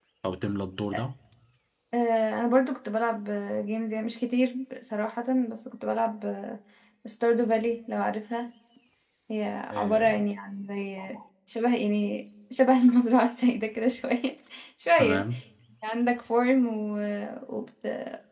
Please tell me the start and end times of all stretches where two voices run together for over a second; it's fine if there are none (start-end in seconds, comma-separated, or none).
none